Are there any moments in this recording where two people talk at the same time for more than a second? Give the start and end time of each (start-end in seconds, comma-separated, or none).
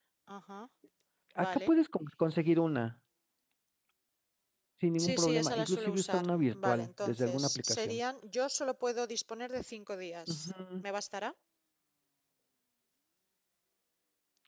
5.0-6.2, 6.6-8.0